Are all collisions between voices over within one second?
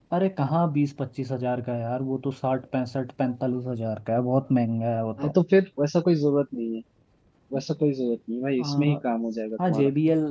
Yes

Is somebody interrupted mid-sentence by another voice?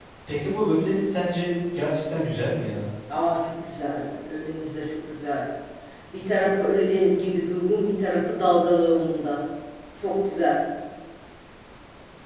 No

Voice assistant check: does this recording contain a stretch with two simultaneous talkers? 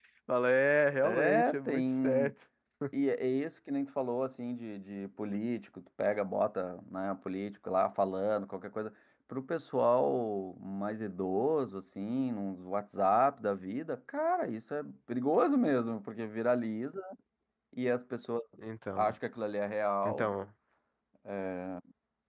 Yes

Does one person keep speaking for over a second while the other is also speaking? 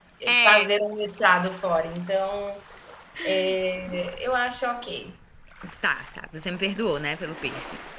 No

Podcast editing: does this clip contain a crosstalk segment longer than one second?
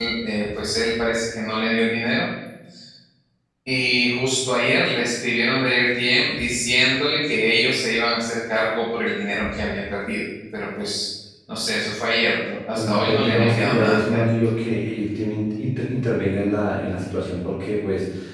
Yes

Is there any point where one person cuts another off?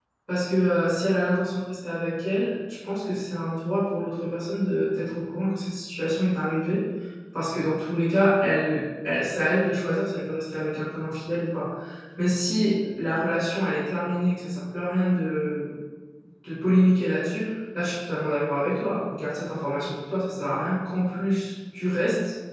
No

